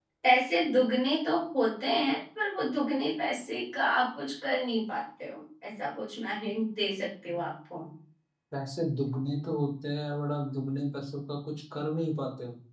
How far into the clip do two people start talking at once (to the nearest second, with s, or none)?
none